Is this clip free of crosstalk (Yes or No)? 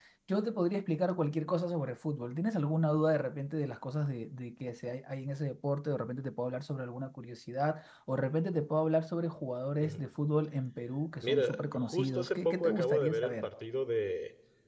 No